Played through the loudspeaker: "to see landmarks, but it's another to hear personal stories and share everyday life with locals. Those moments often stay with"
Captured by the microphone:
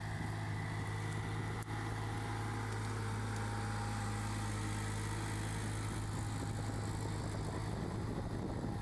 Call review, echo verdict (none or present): none